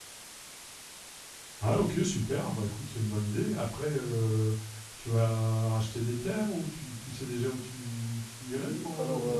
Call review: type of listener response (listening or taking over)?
taking over